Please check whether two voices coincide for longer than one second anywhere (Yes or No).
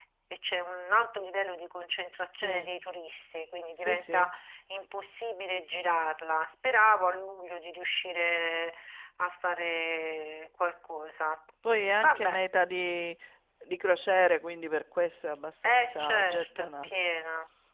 Yes